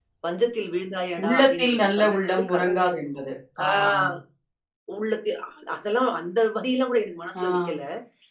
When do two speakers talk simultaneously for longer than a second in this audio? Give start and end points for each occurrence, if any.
1.2-2.8

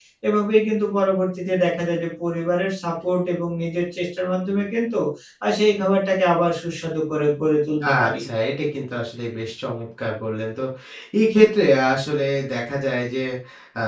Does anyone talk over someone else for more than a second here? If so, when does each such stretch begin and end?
none

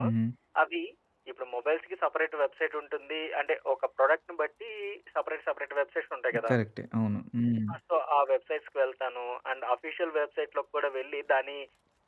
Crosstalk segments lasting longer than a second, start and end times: none

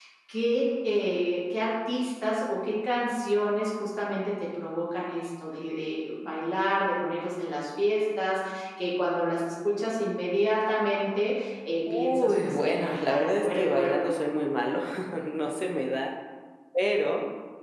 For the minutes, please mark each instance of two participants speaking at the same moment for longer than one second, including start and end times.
11.9-14.0

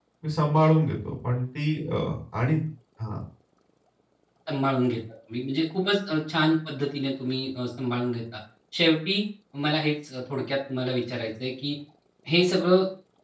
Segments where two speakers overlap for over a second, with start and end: none

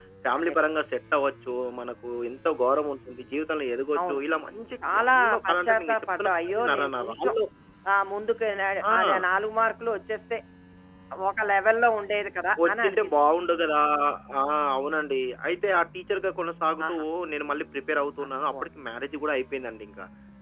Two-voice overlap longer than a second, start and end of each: 4.9-7.3

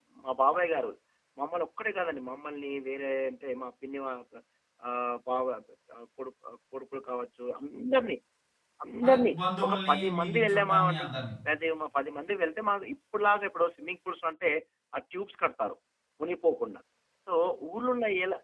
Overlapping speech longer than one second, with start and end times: 9.1-11.1

